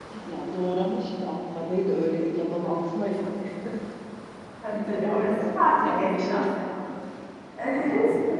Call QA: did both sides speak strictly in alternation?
No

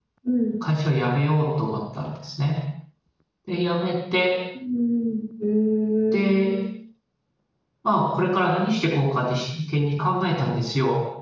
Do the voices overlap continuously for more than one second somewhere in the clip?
No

